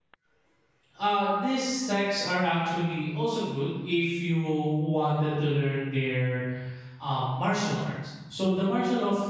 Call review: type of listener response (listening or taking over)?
listening